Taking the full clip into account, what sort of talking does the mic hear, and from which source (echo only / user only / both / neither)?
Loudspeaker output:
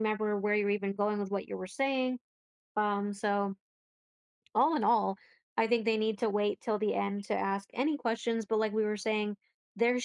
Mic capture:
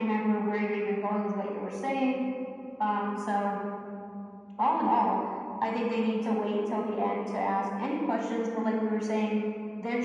echo only